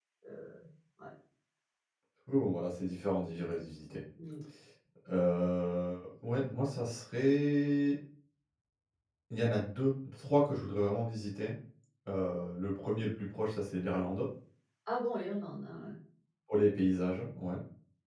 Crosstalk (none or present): none